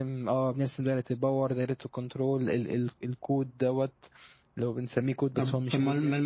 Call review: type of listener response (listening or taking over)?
taking over